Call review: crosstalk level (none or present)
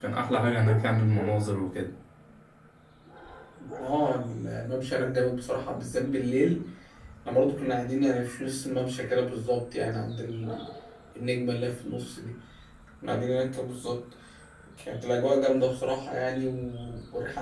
none